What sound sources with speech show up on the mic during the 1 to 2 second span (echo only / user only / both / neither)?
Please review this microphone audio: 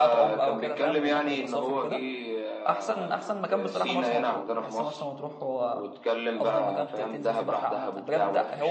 both